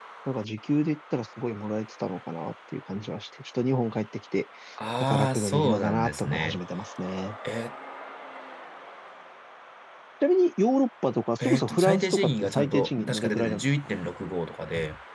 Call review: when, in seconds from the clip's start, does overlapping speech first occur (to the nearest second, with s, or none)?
5 s